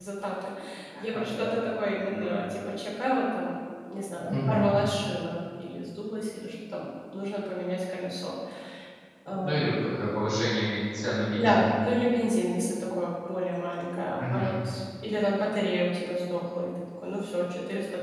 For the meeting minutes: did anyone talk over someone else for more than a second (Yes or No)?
No